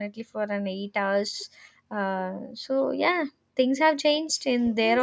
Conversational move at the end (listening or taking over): taking over